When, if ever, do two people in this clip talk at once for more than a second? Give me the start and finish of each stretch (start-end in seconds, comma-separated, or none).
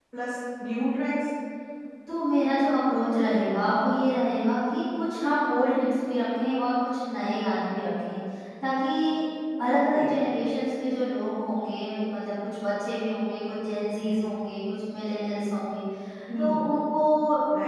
none